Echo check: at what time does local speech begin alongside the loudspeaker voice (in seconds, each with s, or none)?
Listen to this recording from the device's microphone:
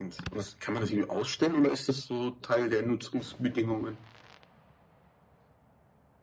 none